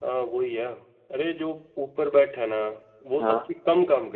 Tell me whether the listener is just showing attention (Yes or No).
Yes